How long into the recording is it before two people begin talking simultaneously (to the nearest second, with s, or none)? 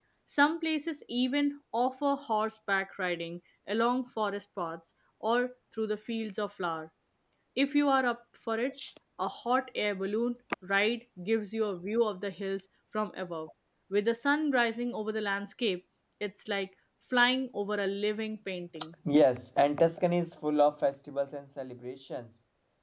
none